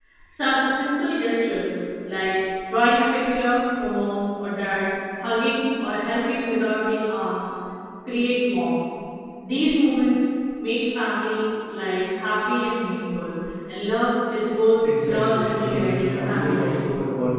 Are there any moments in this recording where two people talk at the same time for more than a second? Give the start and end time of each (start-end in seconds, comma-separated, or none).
15.0-16.8